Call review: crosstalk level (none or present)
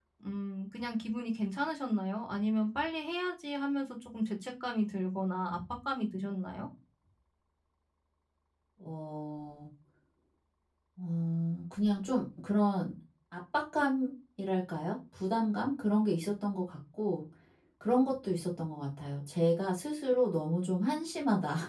none